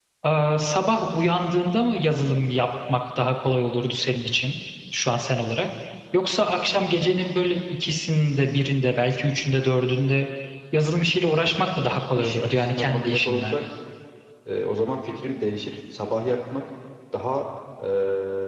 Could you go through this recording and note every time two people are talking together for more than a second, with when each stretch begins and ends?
12.2-13.6

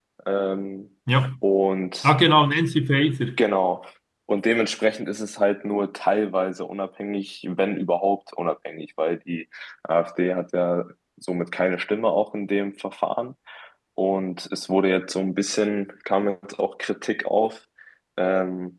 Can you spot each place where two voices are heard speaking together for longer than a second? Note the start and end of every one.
none

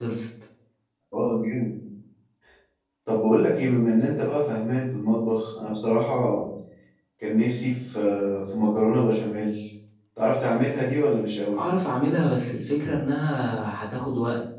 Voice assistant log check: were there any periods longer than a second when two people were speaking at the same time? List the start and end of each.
none

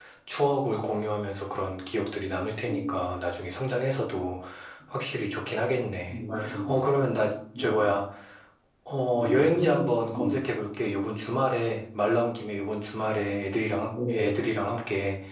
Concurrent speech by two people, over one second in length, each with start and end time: 9.1-10.4

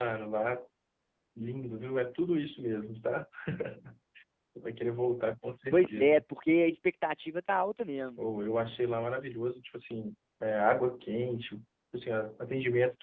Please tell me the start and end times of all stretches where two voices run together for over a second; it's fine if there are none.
none

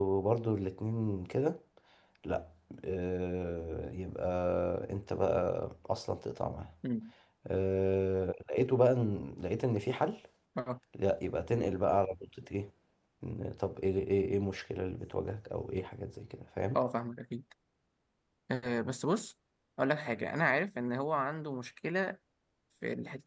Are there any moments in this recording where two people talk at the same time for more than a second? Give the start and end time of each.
none

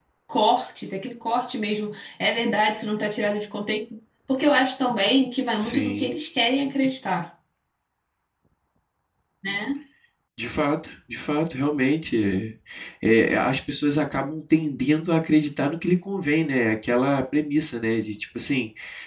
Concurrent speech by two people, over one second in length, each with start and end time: none

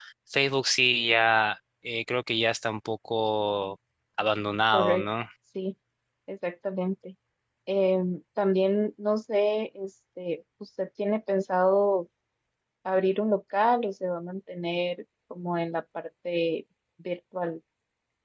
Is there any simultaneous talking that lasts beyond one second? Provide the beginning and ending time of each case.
none

